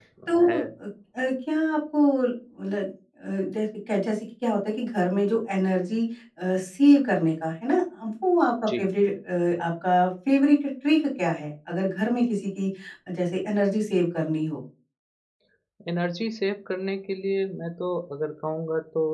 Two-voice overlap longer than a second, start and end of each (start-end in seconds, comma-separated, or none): none